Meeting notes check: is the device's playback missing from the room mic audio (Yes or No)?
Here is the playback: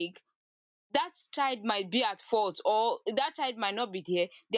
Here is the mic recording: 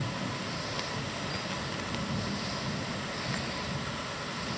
Yes